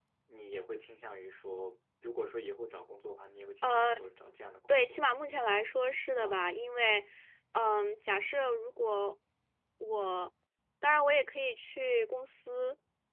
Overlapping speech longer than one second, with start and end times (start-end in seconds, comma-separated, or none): none